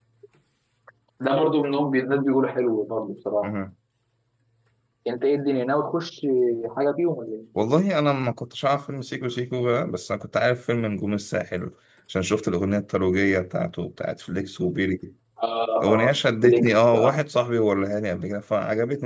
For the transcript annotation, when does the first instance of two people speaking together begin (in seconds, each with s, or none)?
15.8 s